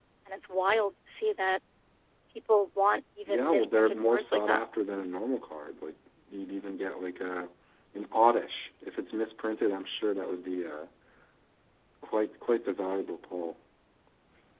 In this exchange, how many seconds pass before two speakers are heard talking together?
3 s

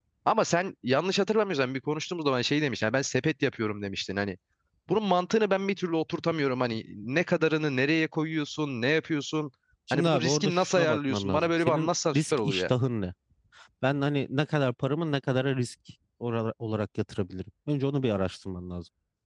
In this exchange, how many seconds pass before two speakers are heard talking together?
10 s

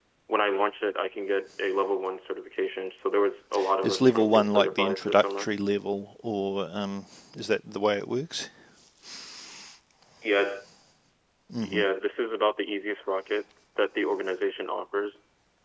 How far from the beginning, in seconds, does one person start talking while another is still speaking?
4 s

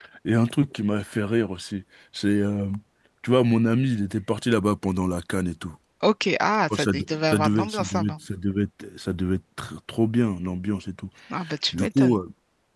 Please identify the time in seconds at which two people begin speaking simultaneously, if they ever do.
7 s

